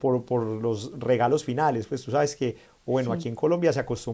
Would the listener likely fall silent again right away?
Yes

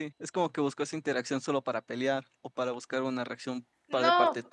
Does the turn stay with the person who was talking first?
No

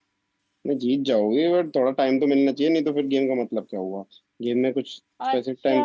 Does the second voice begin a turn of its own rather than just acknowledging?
No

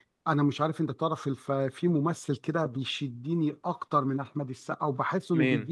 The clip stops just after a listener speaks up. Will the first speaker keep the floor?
Yes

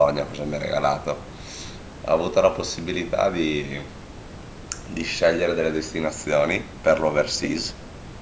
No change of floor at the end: Yes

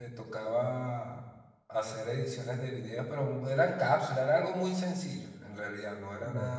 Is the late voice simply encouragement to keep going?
Yes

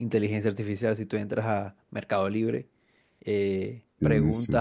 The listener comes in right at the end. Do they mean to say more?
No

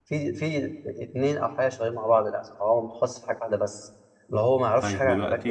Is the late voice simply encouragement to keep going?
No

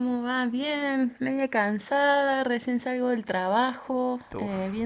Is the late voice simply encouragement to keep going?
Yes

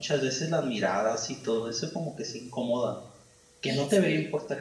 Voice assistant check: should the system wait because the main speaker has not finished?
Yes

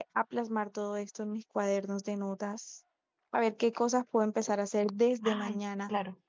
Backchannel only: Yes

